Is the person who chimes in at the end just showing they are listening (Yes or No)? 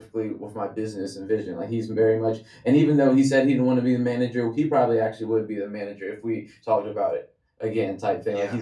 Yes